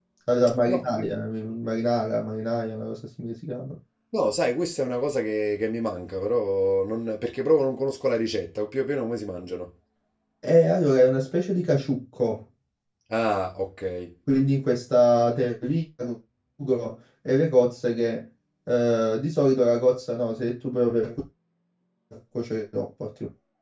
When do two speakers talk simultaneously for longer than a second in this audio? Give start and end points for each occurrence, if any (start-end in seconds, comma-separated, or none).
none